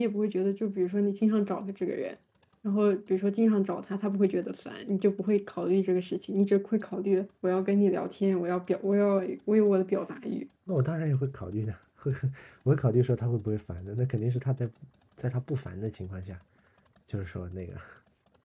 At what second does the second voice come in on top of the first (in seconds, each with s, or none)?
none